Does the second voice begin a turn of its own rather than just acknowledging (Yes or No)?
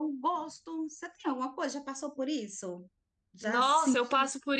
Yes